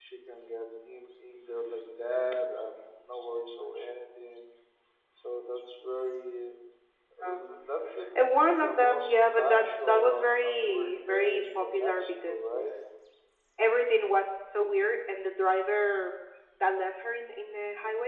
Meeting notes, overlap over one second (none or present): present